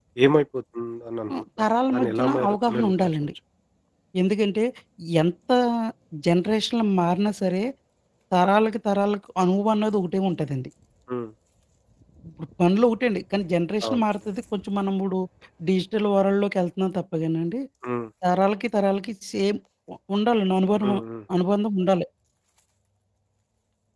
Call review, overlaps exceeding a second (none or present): present